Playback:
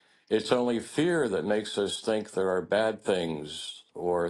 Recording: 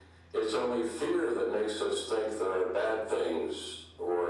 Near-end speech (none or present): none